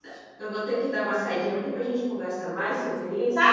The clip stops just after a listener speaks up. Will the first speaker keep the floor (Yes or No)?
No